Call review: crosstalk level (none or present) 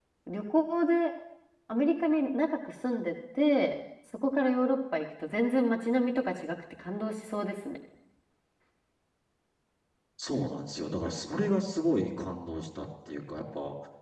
none